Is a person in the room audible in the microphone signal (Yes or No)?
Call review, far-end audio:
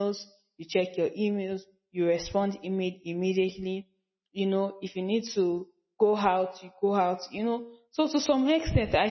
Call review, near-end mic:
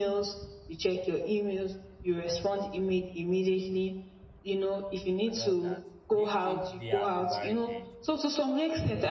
Yes